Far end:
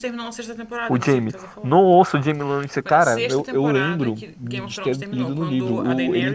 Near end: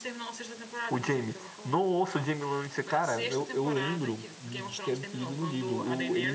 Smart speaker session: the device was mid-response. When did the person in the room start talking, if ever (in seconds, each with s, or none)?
none